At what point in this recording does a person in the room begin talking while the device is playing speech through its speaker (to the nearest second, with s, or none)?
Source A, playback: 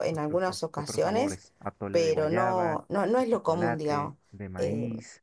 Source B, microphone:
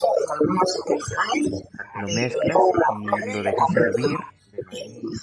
2 s